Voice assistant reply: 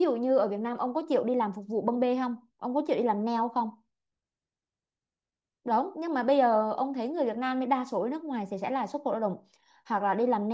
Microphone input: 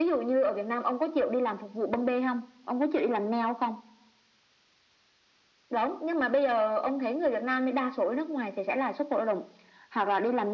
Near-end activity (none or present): none